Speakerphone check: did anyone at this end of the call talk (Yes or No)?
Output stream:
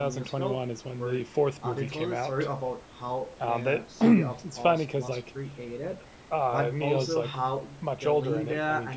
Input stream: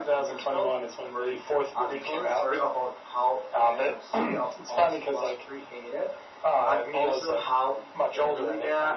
No